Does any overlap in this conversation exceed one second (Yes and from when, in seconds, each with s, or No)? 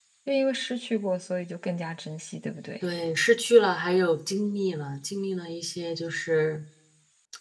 No